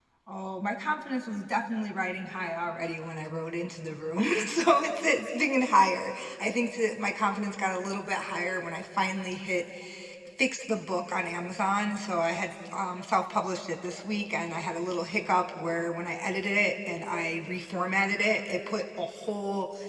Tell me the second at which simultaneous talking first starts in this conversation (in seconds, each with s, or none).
none